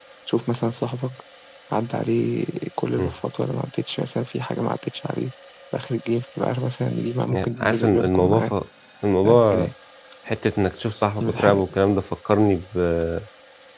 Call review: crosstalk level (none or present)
present